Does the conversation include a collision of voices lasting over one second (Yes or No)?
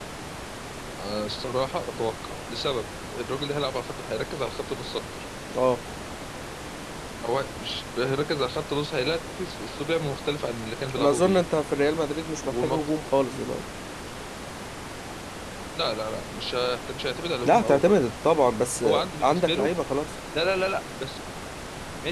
No